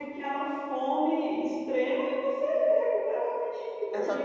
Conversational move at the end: taking over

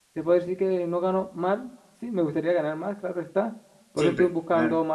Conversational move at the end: listening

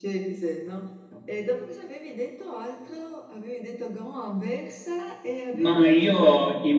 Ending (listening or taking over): taking over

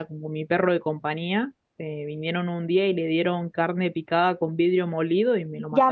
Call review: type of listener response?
taking over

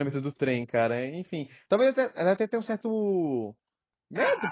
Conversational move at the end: taking over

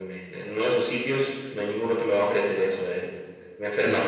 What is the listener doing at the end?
listening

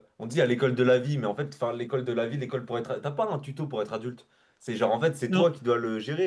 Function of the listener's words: listening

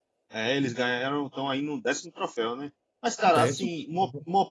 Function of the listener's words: listening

